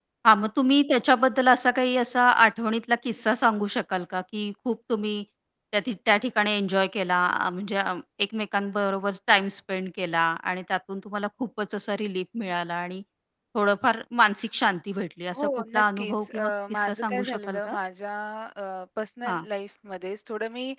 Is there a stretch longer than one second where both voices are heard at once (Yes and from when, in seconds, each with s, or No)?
Yes, from 15.3 s